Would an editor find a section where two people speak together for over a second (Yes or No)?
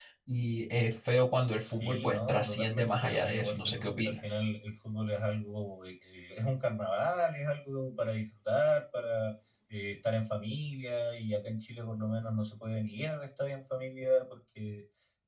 Yes